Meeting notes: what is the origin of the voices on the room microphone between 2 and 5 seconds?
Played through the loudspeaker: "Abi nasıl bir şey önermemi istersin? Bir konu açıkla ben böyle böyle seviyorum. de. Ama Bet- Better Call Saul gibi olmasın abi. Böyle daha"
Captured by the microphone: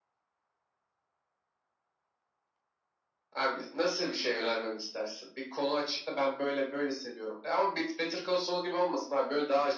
echo only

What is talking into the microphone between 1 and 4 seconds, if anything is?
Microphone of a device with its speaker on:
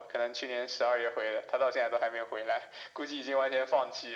echo only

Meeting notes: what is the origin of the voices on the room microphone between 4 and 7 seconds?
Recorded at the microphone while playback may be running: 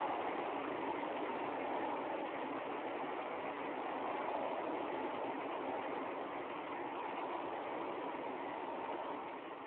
neither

